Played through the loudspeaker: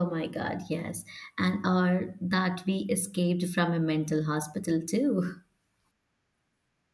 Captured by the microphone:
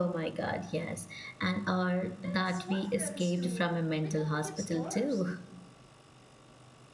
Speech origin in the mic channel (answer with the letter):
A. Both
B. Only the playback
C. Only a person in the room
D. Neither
A